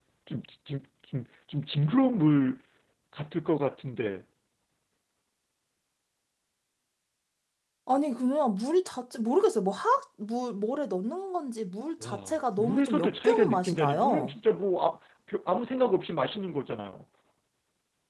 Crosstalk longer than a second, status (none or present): present